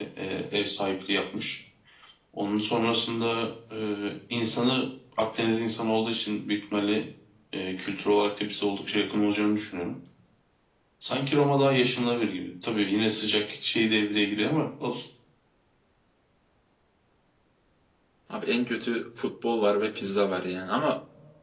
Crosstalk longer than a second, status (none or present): none